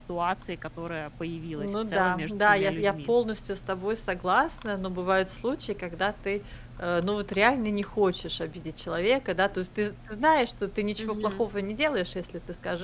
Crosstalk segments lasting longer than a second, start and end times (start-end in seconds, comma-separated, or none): 1.6-3.1